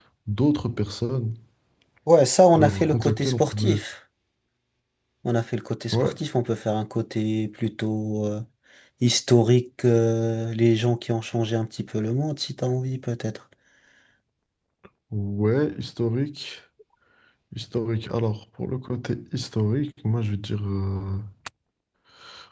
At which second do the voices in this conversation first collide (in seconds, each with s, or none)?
2.5 s